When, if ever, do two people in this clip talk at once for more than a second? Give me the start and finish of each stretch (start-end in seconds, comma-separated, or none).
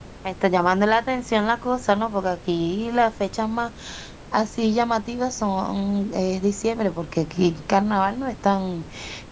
none